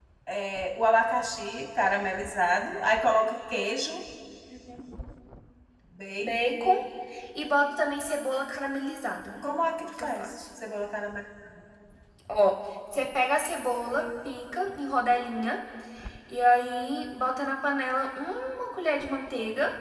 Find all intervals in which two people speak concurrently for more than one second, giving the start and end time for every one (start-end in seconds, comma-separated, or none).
none